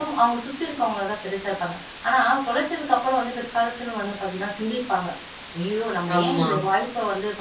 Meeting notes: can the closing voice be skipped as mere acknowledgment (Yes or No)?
Yes